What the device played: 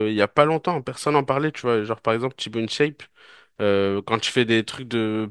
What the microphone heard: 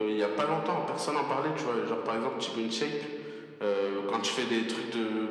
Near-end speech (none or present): none